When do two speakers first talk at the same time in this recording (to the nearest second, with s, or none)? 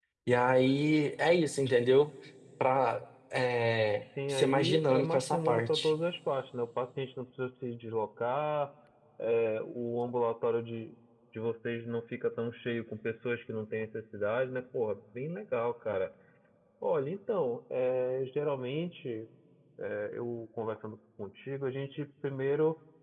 4 s